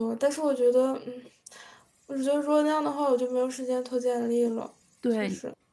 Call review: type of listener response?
taking over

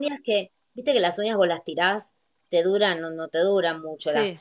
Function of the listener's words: listening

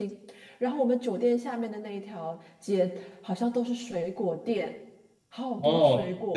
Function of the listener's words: taking over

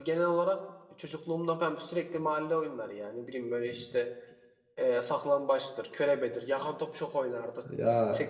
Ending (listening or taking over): listening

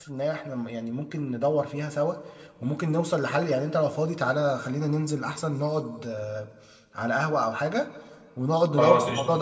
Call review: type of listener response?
listening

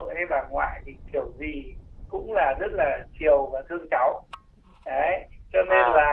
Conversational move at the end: listening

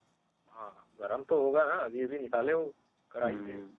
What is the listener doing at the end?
taking over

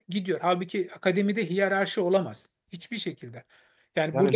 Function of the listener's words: listening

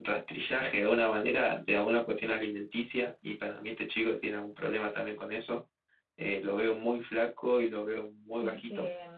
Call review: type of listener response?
taking over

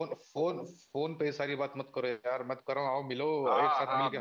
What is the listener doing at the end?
taking over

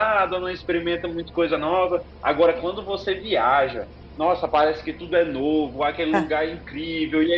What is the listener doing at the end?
listening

